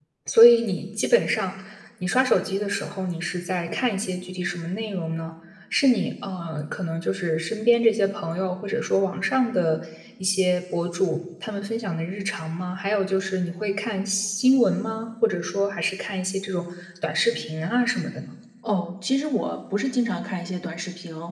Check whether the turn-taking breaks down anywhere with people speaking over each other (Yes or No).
No